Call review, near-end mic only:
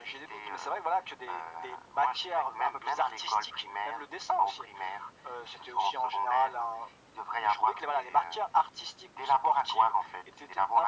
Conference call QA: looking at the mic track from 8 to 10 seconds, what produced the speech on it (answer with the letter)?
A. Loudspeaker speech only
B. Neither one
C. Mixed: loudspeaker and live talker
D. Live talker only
A